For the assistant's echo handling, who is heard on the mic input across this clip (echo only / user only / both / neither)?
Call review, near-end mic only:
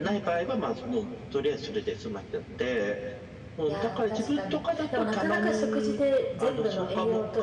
both